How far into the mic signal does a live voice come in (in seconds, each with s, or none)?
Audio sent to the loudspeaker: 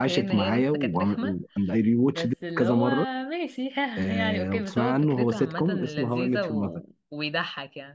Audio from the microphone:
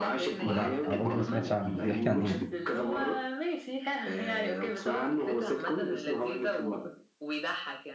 0.5 s